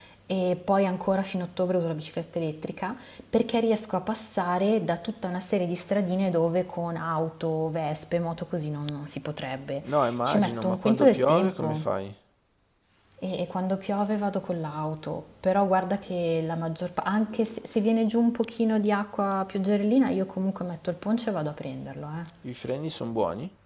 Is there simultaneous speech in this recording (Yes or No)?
Yes